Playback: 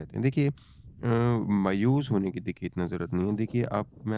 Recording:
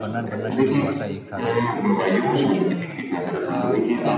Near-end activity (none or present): present